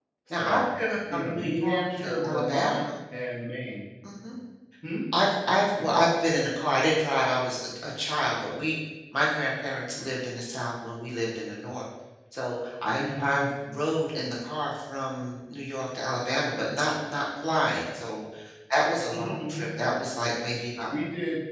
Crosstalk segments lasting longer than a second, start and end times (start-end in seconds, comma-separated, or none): 1.1-2.8